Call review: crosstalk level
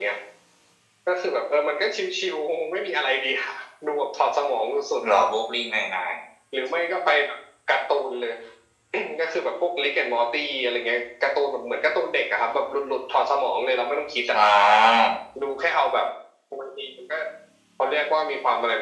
none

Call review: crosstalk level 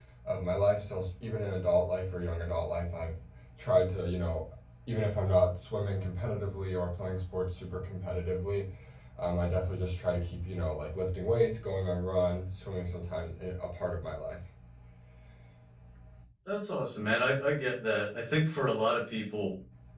none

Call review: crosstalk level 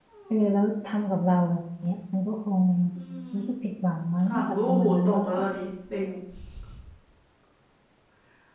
present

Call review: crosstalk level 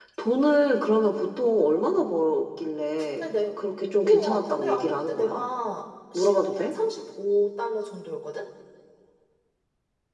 present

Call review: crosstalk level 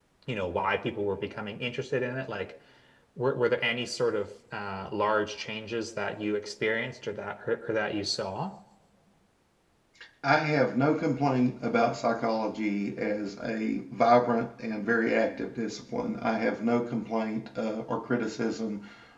none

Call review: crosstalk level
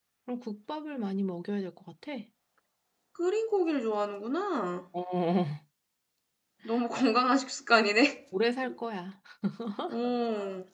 none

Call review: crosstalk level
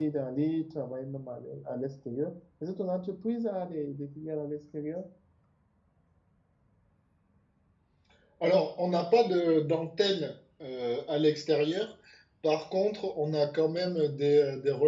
none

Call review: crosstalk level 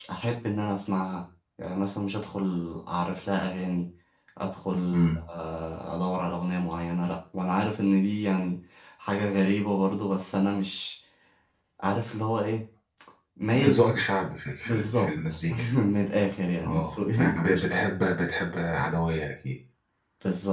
present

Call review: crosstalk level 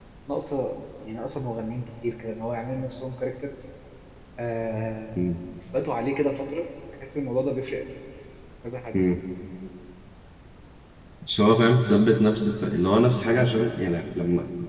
none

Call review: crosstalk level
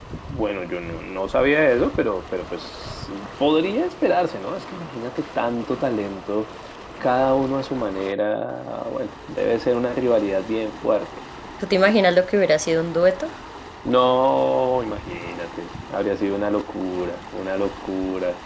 none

